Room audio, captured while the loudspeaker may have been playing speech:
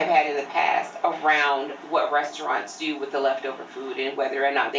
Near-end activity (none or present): none